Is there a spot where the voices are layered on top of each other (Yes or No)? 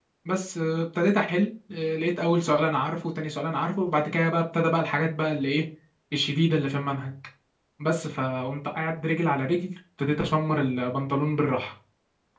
No